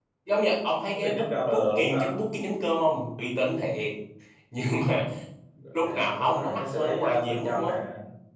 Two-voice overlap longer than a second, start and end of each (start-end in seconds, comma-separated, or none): 0.9-2.1, 5.7-7.7